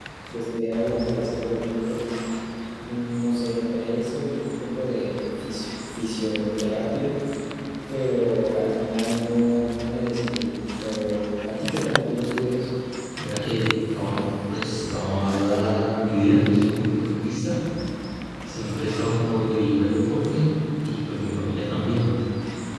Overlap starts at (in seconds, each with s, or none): none